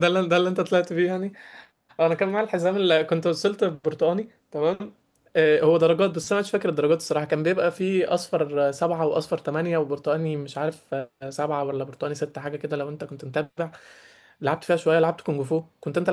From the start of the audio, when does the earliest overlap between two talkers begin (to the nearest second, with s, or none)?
none